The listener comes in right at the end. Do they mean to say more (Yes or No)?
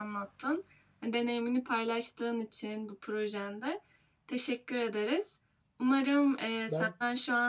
No